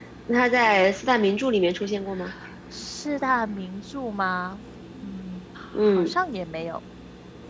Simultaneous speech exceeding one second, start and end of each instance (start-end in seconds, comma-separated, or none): none